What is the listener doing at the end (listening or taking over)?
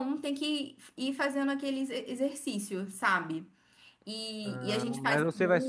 taking over